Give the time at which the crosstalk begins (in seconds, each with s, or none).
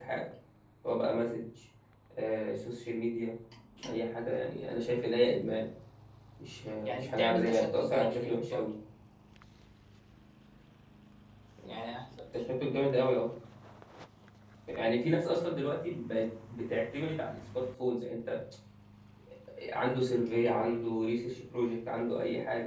6.8 s